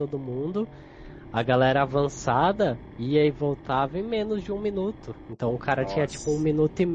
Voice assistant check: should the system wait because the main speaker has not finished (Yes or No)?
Yes